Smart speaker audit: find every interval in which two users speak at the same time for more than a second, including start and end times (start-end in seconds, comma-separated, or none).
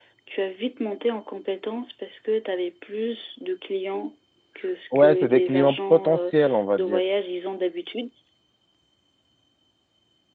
5.0-6.3